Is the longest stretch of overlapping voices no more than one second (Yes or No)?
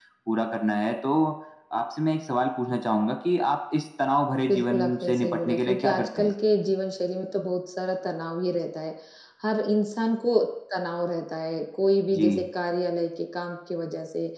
No